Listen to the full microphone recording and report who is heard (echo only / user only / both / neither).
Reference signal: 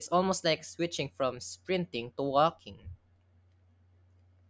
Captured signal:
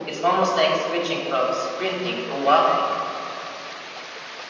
echo only